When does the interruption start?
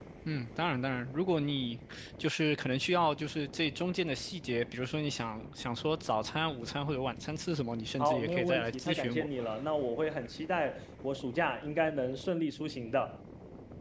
8.0 s

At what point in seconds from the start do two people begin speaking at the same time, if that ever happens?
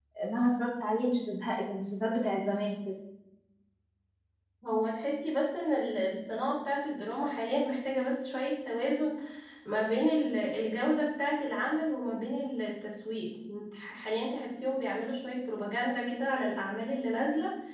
none

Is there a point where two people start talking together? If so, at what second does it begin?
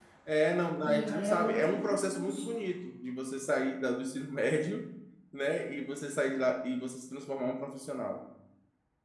0.8 s

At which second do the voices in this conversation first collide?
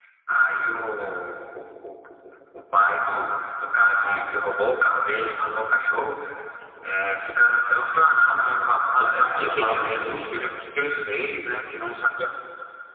9.0 s

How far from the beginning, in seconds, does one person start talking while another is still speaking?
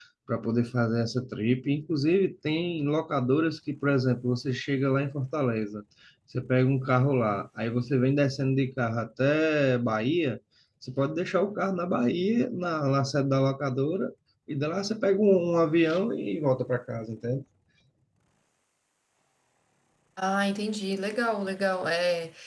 none

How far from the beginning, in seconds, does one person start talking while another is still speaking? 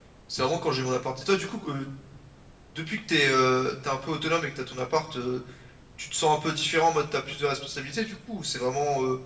none

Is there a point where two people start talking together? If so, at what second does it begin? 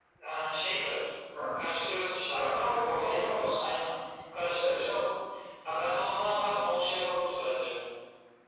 2.4 s

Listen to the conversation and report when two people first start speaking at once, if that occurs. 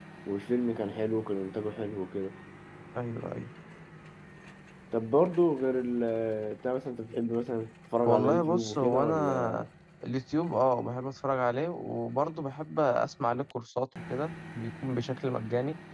8.0 s

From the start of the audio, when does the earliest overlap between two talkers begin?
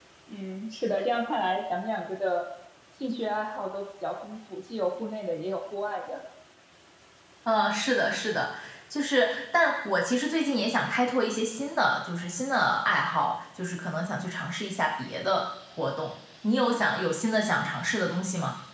none

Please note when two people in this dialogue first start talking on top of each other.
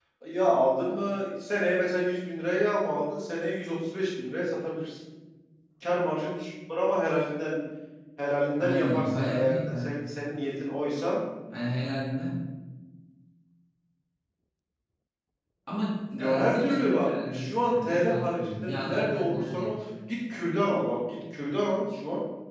8.6 s

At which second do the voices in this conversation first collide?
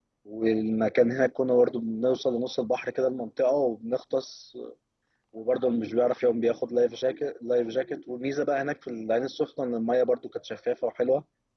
none

